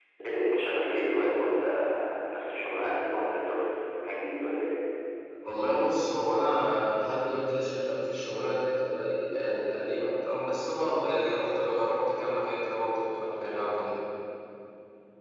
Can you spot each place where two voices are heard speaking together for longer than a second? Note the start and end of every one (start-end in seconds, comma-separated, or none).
none